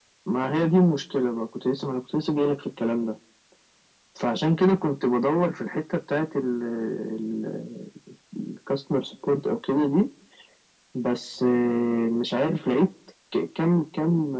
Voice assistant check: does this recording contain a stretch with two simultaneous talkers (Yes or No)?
No